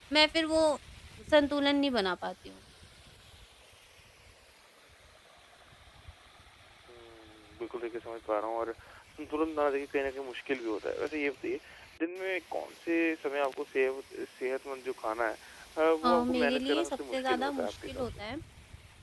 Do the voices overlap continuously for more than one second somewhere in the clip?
Yes, from 16.0 s

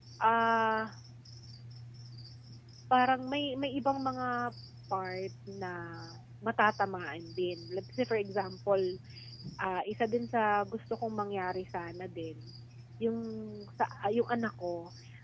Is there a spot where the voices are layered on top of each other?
No

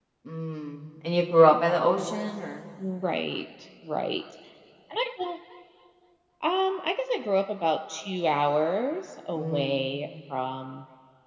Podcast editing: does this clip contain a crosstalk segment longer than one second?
No

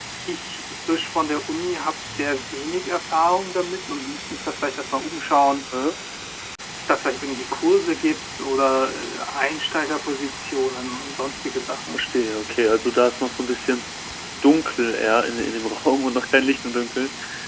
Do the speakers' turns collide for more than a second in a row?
No

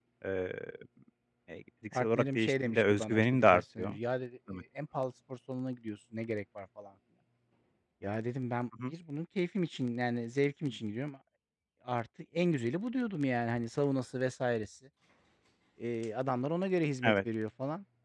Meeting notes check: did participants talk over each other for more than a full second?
Yes, from 1.9 s

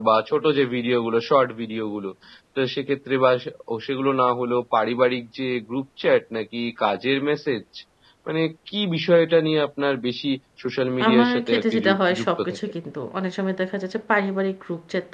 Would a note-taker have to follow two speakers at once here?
Yes, from 11.0 s

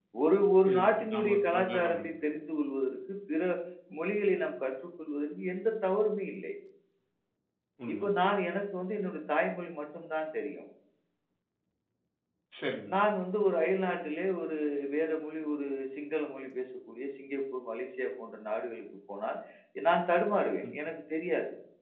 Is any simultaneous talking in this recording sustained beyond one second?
Yes, from 0.7 s

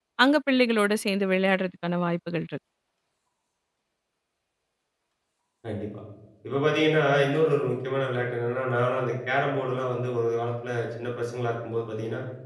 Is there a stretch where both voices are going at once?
No

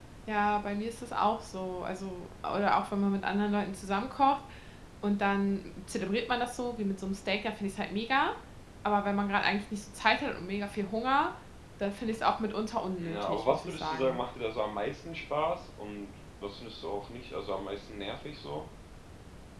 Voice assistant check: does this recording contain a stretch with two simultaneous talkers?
Yes, from 13.0 s

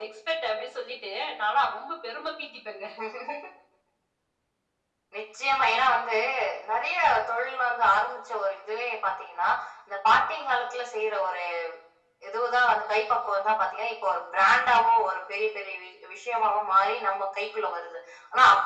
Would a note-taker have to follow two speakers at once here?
No

